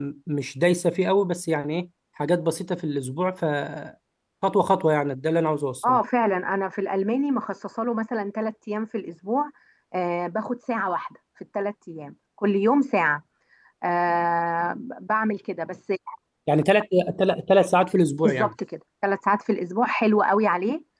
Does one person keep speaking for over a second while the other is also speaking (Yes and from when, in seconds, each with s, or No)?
No